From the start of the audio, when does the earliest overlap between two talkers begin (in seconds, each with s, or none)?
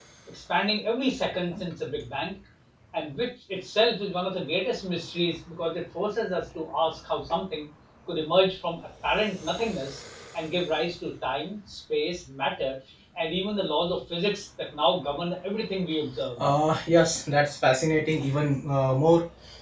none